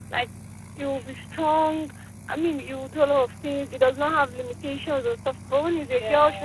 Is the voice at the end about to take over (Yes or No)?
No